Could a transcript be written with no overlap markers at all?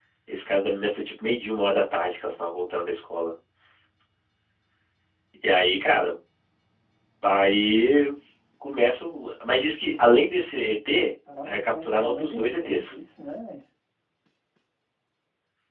No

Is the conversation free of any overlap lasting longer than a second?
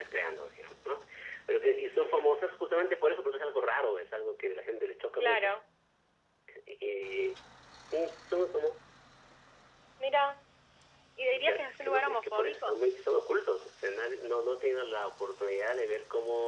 No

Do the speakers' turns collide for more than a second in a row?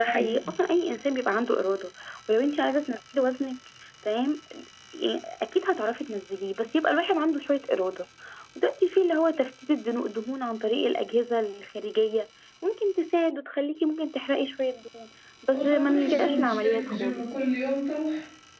Yes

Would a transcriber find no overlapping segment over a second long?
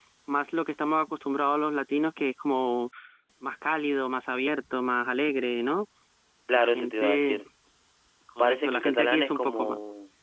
No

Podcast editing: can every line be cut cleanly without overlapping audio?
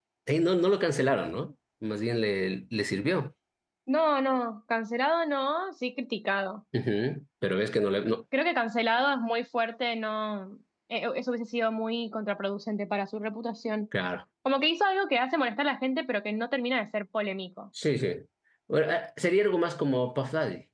Yes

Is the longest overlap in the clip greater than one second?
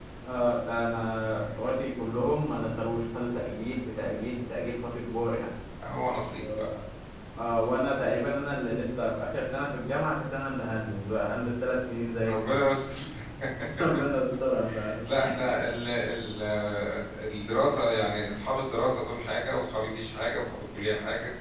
No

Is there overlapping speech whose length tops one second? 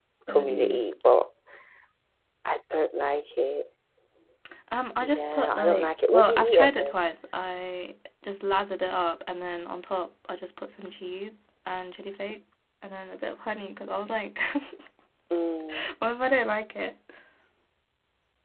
Yes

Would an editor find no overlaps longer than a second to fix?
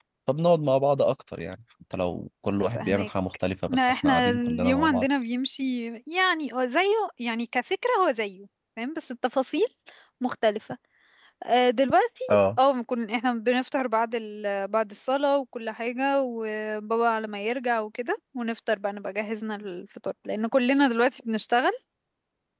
No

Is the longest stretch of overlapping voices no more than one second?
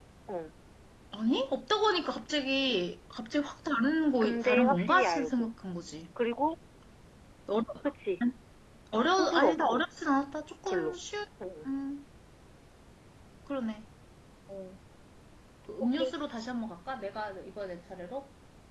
No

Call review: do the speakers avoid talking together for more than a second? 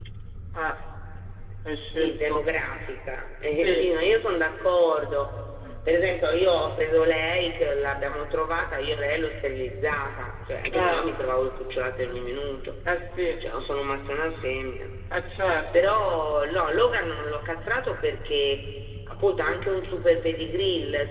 Yes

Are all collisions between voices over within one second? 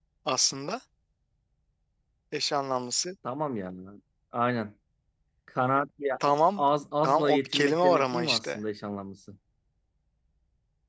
No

